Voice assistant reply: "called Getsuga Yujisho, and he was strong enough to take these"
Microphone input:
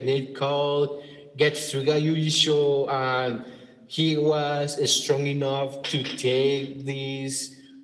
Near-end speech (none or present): none